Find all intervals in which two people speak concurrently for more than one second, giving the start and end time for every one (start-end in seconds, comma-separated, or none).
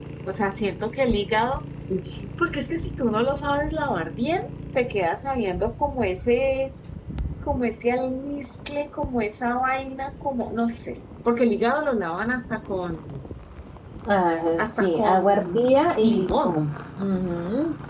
14.6-16.6